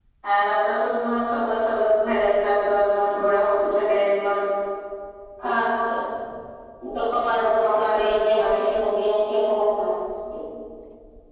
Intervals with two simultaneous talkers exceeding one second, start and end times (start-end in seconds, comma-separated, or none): 7.3-8.6